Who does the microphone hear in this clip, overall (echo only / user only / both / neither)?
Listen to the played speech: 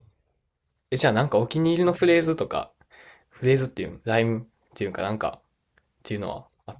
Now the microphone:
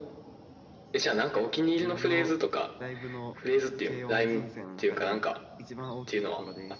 both